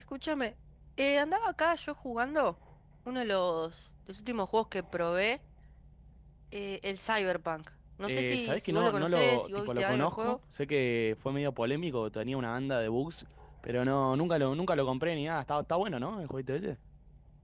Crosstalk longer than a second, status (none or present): present